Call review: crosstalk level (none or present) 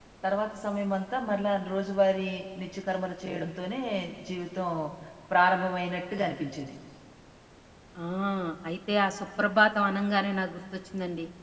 none